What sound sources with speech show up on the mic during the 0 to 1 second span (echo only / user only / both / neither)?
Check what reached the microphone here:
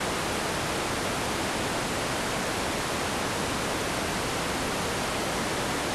neither